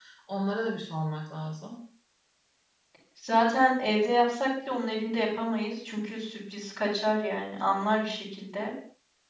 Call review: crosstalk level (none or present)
none